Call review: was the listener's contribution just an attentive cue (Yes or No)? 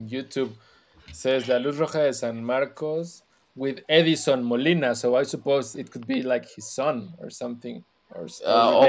No